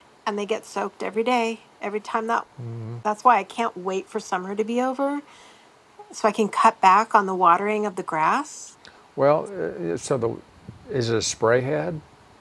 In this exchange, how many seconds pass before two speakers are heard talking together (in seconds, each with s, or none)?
none